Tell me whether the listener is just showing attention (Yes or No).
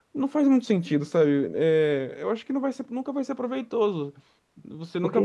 Yes